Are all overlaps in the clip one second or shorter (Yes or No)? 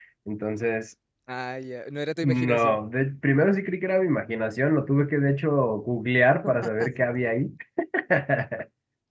Yes